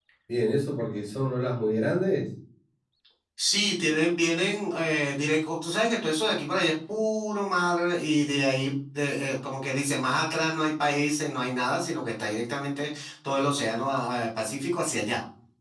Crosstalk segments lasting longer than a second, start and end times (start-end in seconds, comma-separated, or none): none